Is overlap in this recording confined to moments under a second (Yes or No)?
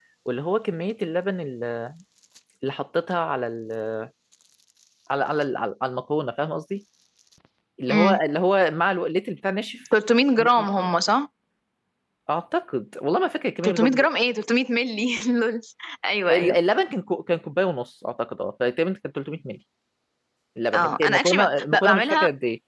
No